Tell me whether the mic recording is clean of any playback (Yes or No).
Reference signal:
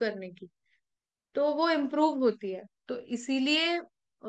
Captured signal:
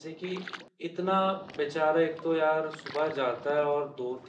Yes